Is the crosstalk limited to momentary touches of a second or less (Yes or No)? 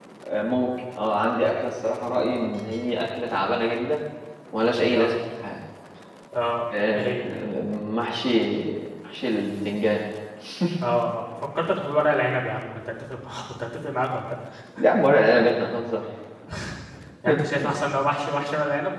Yes